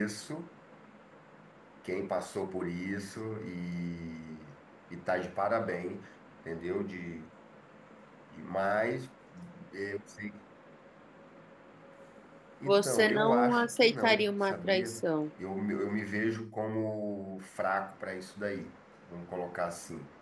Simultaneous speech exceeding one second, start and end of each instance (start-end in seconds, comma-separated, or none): 12.7-15.0